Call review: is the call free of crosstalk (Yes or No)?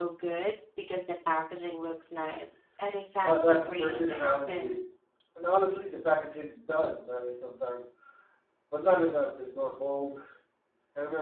No